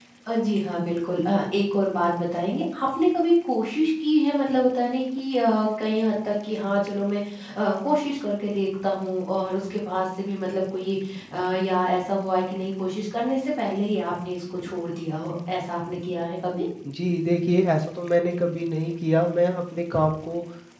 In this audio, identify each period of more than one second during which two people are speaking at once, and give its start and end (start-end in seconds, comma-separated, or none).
none